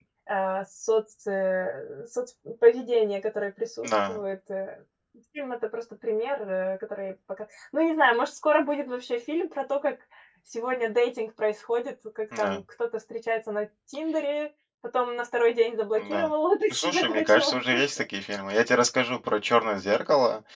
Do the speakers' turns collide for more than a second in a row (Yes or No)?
Yes